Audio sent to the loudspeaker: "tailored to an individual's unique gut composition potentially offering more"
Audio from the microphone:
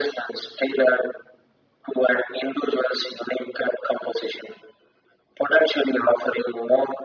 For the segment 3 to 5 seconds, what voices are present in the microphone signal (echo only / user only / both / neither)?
echo only